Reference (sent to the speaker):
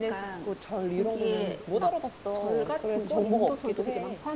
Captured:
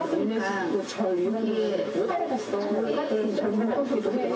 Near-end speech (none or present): present